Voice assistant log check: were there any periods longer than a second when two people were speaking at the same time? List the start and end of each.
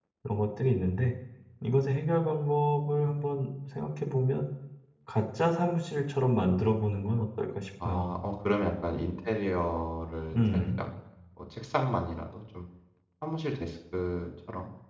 none

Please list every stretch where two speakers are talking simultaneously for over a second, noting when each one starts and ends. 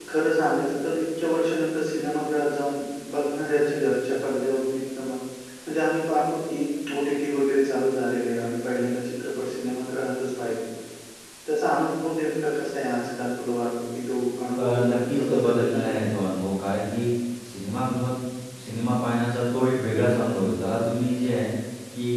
14.6-15.9

